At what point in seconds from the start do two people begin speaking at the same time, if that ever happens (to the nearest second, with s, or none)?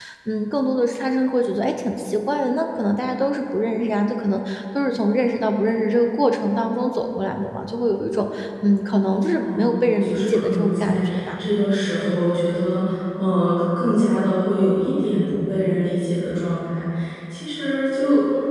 9 s